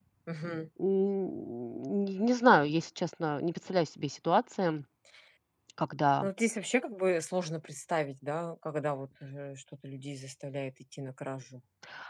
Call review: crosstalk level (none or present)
none